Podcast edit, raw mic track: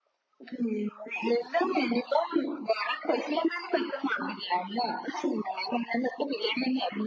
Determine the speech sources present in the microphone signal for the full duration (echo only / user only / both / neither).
echo only